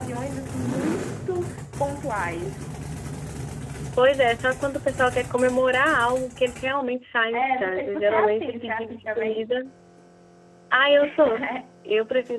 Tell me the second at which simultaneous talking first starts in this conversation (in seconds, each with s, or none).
7.3 s